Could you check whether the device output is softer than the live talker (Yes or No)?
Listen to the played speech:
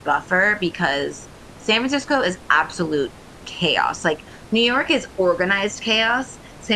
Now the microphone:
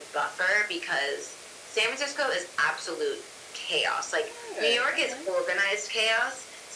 No